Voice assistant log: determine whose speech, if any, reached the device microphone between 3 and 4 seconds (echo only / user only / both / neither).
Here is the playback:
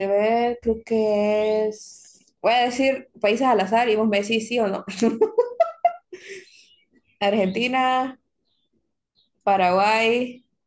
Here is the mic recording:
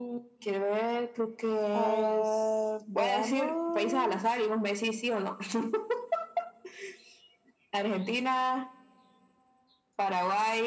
both